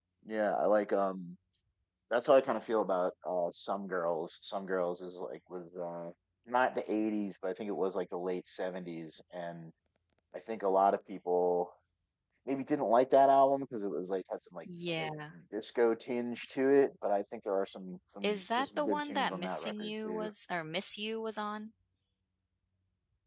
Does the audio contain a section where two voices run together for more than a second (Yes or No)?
Yes